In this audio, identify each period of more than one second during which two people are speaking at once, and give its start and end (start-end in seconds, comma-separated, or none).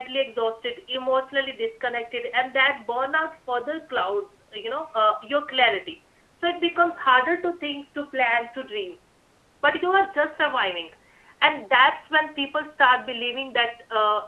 none